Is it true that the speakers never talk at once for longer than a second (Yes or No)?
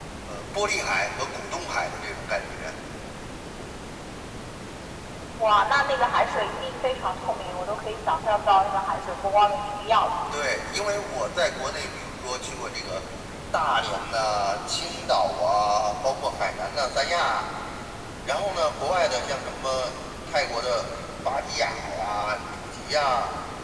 Yes